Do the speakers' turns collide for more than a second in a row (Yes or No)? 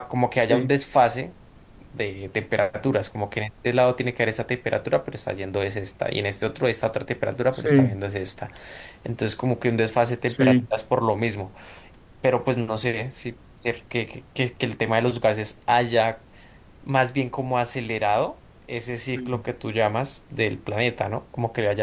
No